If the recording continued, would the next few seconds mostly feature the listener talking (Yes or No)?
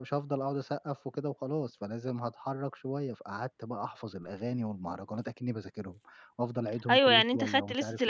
Yes